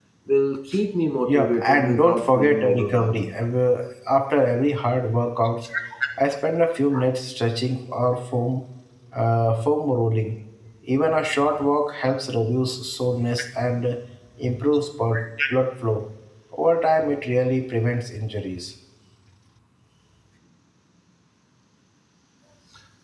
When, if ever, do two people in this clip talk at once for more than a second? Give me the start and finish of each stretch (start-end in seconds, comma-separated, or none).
1.3-3.2